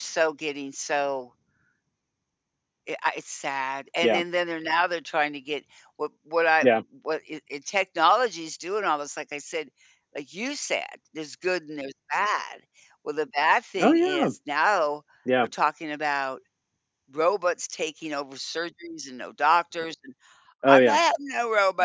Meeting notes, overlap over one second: none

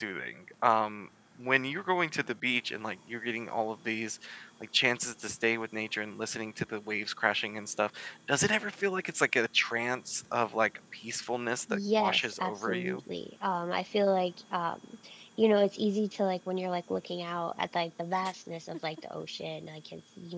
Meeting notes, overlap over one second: present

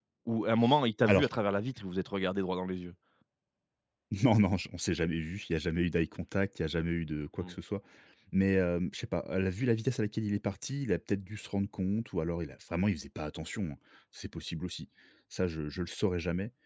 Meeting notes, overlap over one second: none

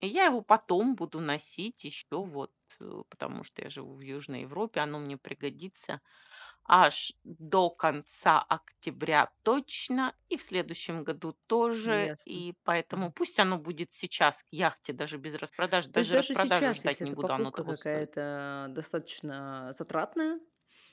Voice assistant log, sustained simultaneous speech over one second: present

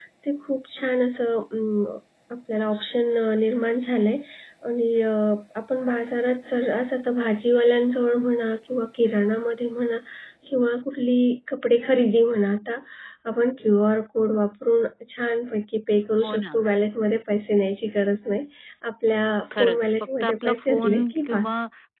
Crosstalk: present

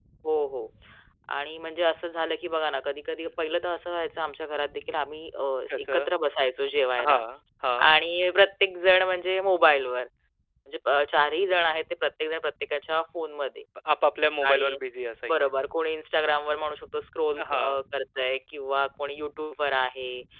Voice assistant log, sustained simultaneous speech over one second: none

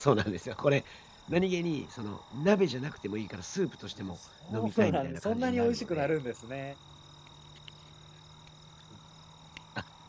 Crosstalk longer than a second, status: present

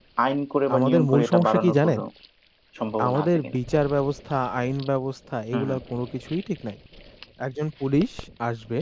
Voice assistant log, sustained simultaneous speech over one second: present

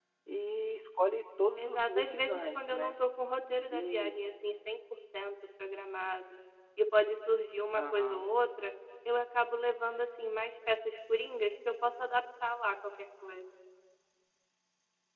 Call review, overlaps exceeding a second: present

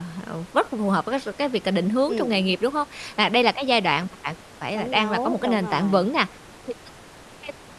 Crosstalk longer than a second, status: present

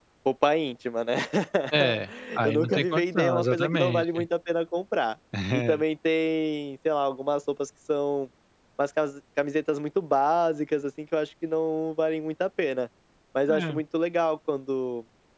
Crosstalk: present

